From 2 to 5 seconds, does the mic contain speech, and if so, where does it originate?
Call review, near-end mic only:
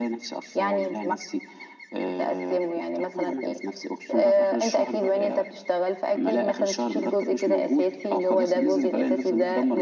echo only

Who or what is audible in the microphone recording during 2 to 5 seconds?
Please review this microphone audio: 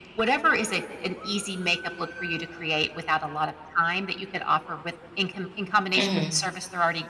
echo only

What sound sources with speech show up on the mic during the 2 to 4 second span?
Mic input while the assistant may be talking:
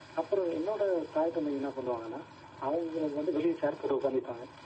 echo only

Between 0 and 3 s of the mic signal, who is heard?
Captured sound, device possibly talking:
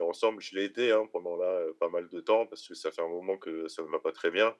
user only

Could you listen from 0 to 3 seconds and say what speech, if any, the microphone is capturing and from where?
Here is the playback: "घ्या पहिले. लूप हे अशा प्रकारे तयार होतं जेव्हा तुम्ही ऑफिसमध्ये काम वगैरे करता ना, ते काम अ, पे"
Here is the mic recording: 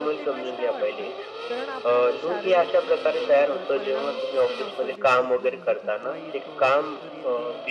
both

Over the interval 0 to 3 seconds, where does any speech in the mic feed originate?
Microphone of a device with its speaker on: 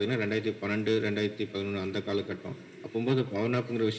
echo only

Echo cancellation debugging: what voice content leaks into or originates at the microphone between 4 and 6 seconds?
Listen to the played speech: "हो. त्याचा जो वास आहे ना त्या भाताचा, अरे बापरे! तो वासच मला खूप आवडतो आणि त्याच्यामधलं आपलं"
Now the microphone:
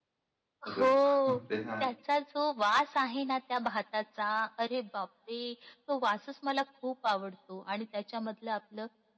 echo only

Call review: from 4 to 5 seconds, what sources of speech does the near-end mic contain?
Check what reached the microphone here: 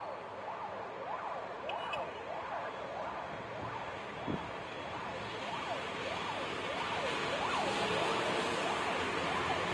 neither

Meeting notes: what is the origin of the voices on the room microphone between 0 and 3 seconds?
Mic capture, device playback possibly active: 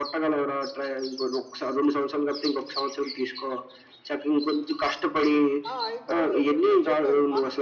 echo only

